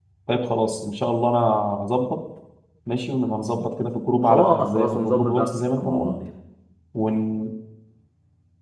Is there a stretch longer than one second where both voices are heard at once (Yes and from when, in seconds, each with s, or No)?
Yes, from 4.2 s